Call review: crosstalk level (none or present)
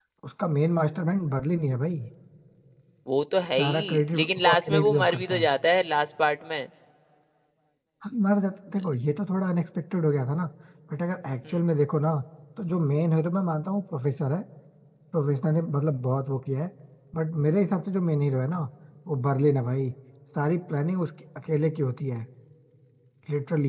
present